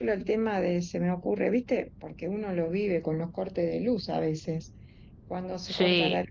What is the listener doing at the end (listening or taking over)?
listening